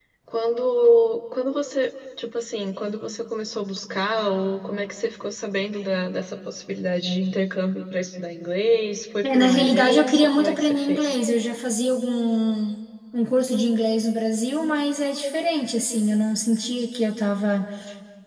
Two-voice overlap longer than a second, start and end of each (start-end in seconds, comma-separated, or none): 9.2-11.2